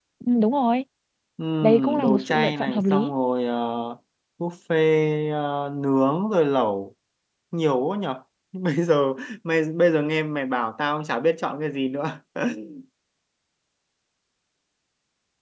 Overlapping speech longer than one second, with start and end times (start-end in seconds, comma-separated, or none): 1.6-3.1